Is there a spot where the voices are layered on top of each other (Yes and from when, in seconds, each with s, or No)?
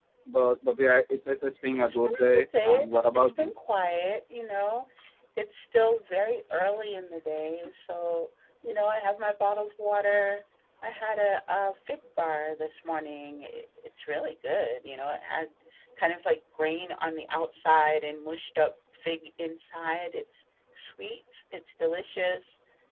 Yes, from 1.8 s